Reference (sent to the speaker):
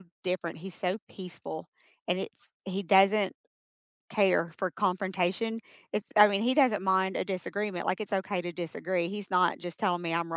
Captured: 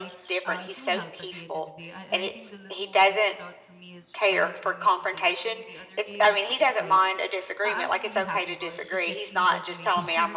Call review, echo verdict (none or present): present